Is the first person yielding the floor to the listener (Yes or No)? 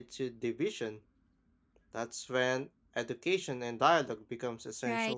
Yes